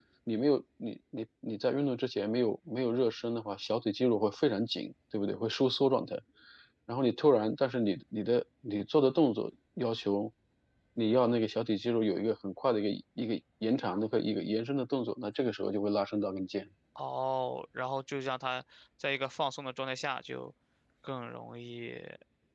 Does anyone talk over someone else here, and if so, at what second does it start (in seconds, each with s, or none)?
none